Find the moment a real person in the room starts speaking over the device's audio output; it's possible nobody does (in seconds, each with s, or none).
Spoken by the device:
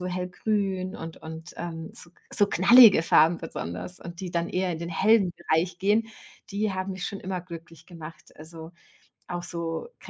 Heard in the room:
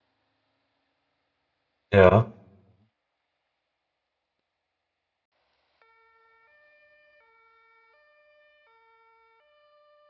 1.9 s